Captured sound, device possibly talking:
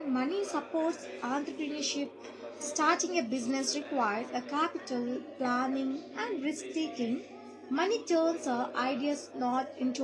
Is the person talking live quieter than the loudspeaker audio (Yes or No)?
No